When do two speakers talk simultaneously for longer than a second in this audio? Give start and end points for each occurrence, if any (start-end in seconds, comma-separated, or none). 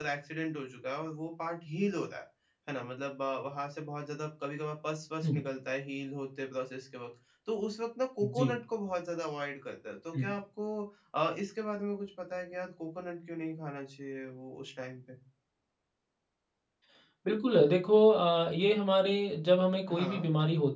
none